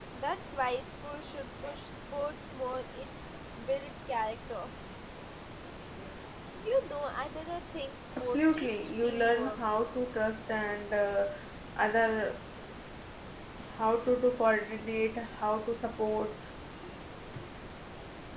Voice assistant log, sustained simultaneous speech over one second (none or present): present